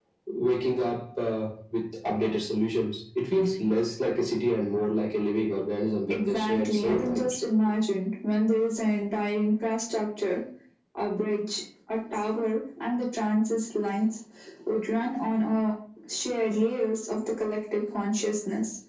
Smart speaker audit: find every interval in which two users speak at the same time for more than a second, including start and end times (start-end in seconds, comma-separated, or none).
6.1-7.3